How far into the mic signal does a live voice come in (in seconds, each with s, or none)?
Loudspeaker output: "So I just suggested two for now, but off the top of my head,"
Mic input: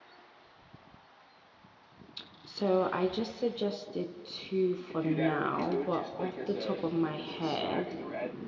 4.8 s